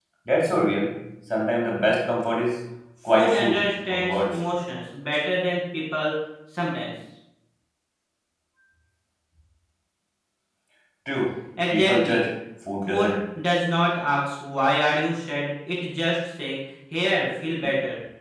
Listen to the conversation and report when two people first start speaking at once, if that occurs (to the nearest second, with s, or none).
3 s